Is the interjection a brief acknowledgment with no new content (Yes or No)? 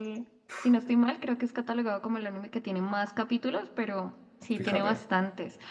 Yes